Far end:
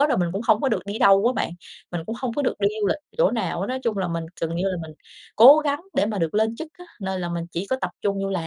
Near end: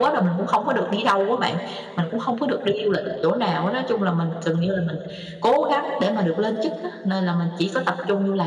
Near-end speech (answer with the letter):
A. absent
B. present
A